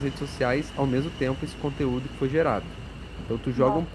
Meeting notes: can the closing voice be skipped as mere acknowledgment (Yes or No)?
Yes